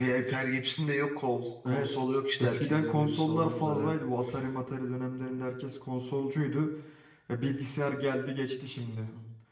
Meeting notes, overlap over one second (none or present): present